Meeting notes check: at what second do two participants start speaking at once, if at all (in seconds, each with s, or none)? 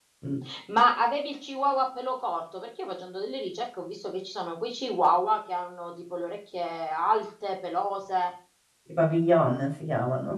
none